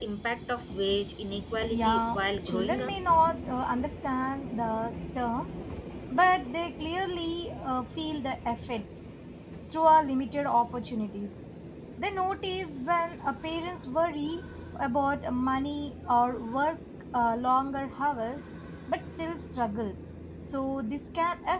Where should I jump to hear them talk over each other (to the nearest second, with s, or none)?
2 s